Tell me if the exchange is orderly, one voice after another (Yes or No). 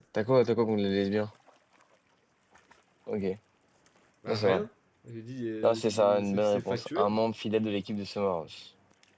No